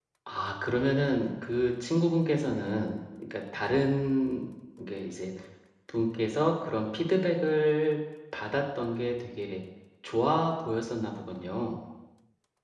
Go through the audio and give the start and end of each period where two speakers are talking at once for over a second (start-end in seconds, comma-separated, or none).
none